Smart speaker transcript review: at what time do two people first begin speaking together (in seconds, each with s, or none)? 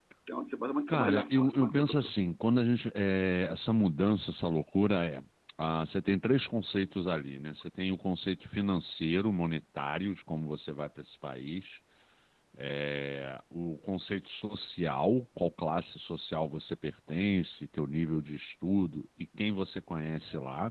0.9 s